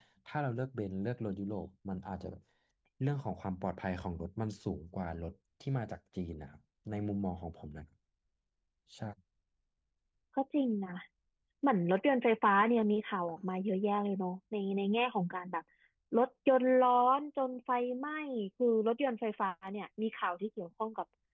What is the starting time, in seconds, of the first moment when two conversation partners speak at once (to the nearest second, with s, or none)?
none